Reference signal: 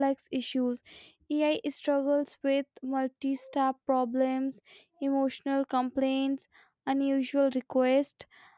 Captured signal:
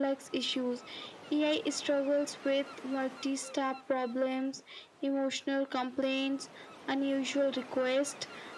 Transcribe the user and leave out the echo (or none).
none